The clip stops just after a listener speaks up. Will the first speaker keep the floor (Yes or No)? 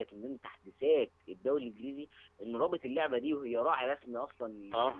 Yes